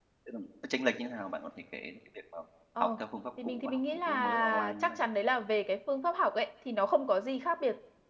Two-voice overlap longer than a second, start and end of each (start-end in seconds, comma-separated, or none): 3.4-5.0